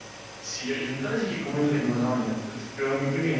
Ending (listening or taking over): taking over